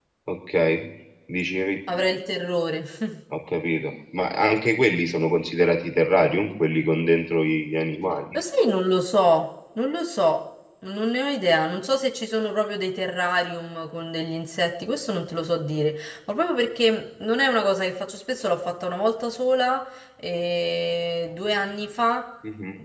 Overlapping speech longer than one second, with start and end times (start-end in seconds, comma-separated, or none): none